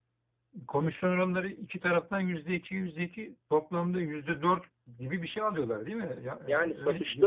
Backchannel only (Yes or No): No